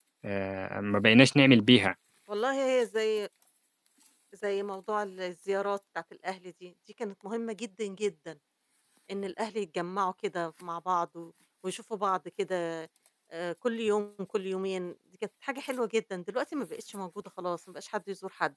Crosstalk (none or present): none